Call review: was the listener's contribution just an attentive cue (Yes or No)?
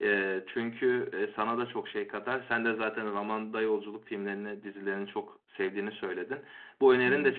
Yes